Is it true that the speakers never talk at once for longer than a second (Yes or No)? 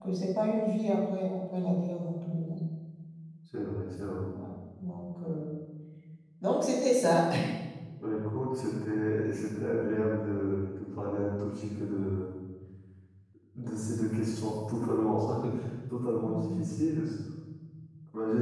Yes